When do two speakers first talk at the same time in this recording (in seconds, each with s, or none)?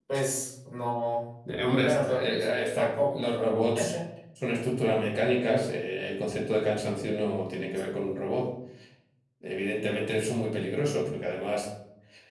1.8 s